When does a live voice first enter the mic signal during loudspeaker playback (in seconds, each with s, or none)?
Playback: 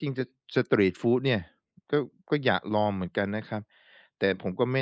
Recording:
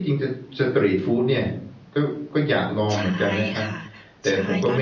2.9 s